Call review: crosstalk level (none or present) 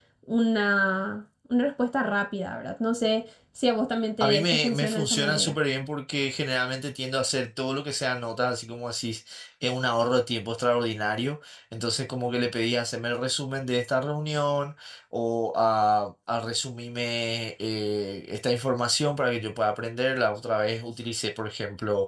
present